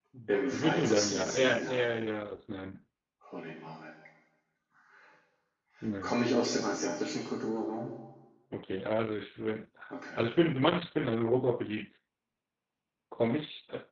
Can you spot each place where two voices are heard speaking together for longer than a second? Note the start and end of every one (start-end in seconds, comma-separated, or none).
0.5-1.8